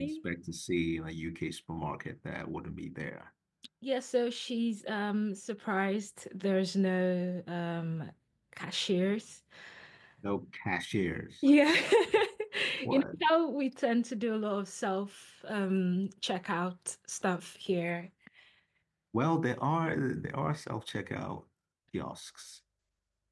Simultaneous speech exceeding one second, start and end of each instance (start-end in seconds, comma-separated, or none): none